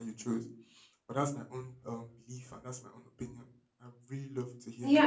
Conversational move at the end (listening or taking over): taking over